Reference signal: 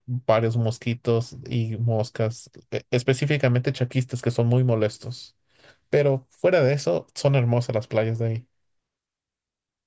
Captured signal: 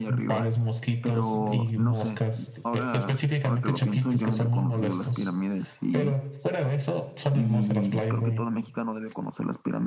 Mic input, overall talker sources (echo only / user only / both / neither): both